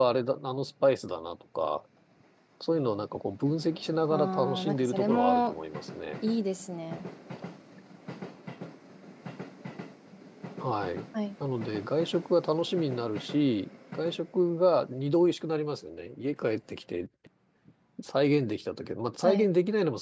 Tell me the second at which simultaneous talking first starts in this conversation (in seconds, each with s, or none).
4.1 s